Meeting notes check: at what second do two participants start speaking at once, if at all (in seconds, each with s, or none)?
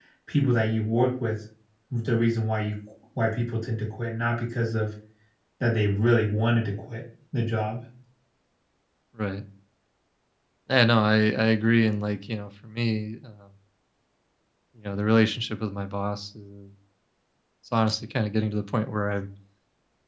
none